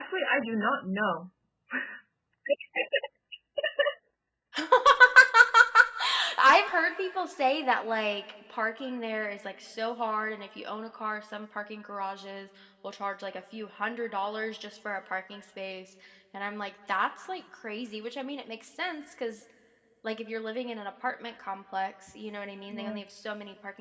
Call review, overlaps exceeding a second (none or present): none